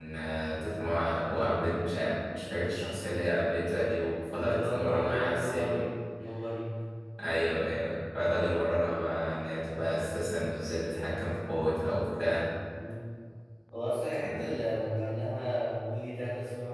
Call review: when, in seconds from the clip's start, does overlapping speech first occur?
4.3 s

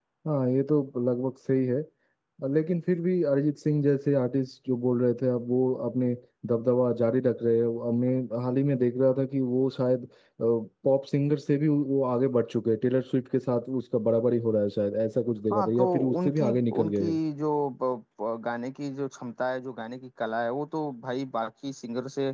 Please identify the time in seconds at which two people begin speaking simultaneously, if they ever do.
15.5 s

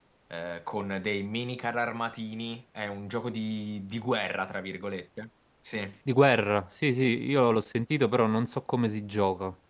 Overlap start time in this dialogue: none

